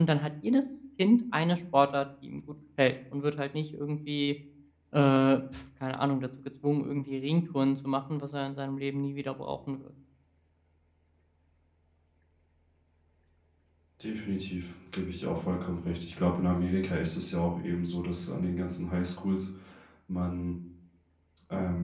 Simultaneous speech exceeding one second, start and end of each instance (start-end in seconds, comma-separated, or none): none